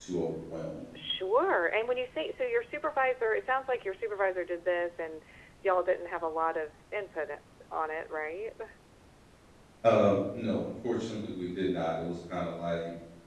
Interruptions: none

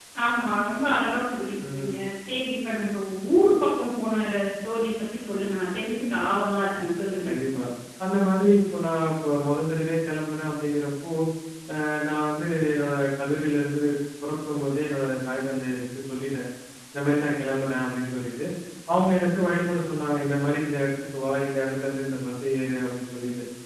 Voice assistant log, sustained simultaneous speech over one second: none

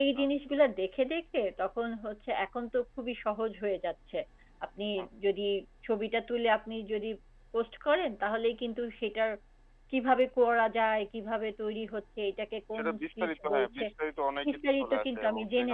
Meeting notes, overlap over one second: present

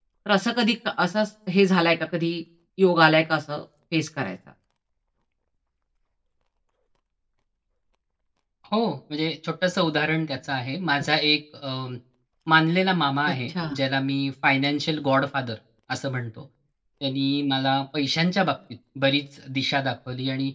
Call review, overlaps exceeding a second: none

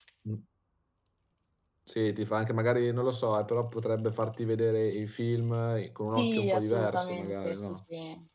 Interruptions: present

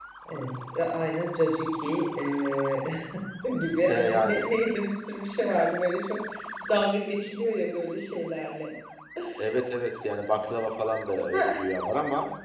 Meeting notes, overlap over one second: none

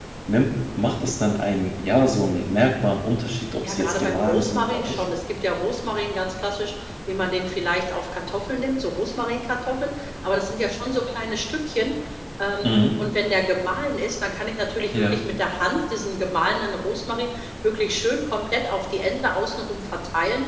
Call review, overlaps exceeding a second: present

